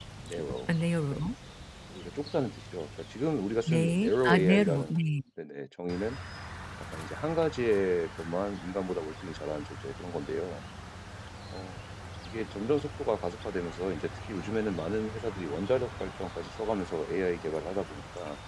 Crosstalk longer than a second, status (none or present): present